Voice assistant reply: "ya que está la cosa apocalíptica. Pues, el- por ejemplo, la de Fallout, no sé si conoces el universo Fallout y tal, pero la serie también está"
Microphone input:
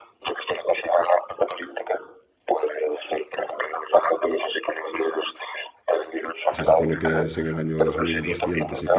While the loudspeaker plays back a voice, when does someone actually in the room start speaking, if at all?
6.5 s

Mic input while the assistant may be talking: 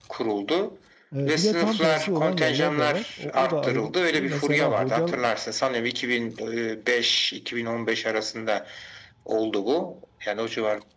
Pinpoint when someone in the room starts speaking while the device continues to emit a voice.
1.2 s

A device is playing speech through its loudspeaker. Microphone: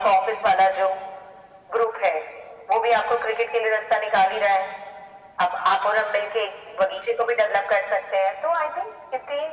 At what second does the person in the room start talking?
none

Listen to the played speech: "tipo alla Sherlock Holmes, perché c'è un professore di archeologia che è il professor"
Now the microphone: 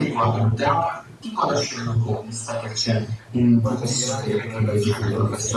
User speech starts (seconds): 3.6 s

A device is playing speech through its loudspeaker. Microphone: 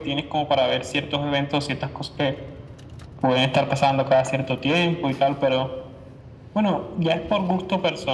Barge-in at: none

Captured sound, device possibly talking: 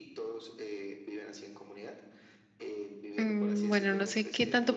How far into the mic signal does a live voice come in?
3.2 s

